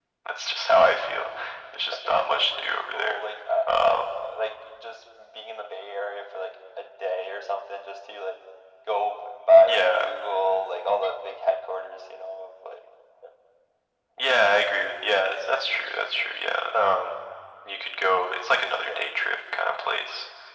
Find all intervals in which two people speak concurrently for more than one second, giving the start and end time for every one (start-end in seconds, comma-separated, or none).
1.9-3.2